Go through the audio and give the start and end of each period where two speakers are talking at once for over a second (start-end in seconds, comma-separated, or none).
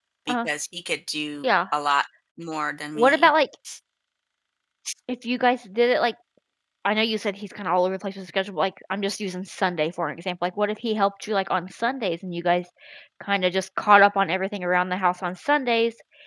none